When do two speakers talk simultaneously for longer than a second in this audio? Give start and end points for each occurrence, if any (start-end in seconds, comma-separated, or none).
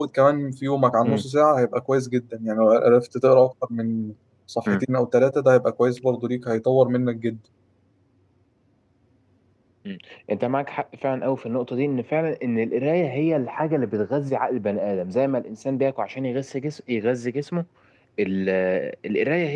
none